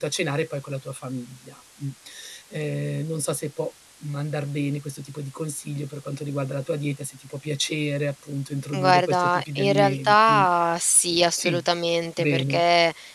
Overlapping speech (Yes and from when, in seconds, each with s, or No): Yes, from 8.7 s